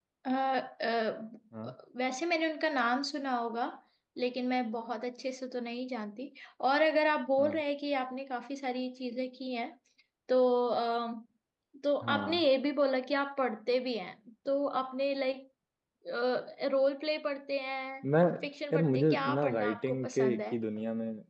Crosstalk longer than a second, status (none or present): present